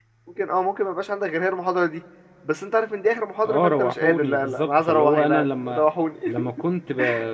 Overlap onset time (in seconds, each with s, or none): 3.5 s